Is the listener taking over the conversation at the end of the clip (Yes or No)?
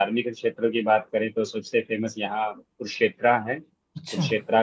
No